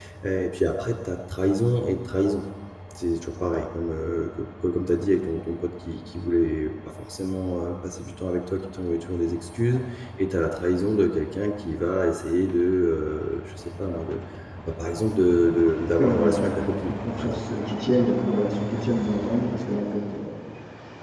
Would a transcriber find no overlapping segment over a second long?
No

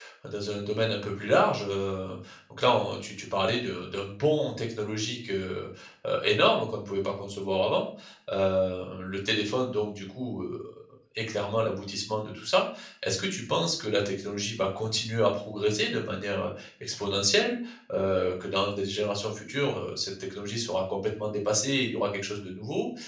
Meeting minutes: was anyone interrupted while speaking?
No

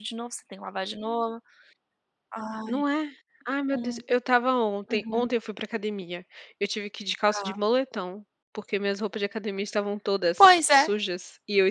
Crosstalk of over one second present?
No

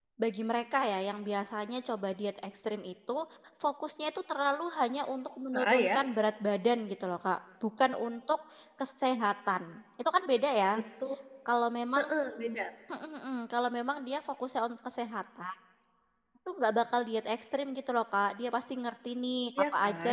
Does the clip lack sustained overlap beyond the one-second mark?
Yes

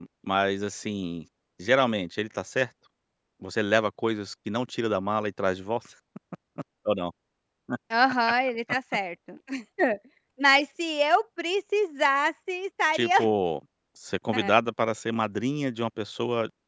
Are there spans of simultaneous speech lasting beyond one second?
No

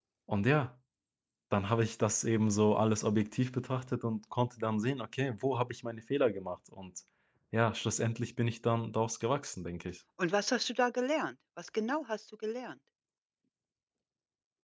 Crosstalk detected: No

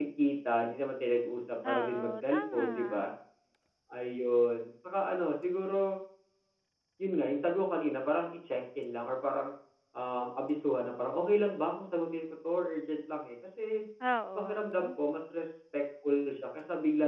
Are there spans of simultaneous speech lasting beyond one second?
Yes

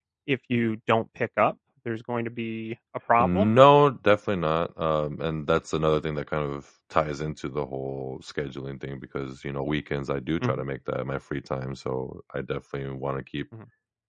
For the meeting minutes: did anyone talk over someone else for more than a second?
No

